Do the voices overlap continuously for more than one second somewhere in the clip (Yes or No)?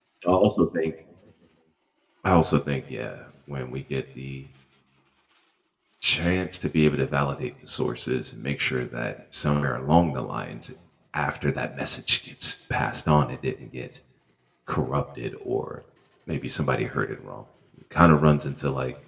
No